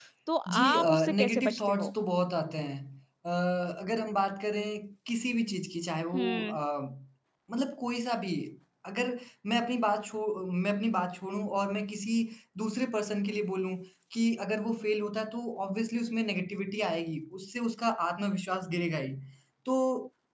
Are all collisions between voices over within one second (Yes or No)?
No